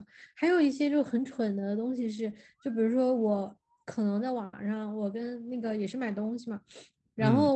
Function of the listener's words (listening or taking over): listening